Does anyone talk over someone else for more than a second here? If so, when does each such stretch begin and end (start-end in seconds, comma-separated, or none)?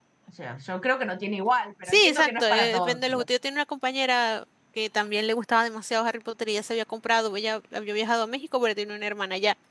1.9-3.3